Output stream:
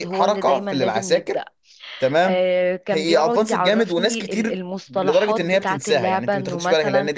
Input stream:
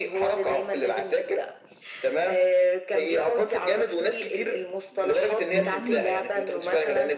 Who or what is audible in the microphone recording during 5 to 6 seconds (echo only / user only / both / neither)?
both